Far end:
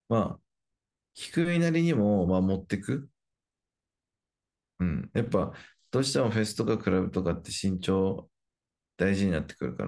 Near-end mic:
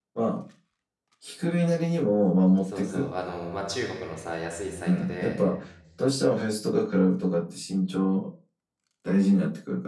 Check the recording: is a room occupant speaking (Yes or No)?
Yes